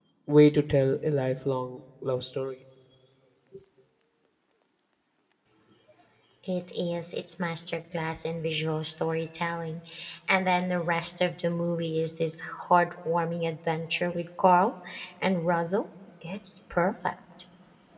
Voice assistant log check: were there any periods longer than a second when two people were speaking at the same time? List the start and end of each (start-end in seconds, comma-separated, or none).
none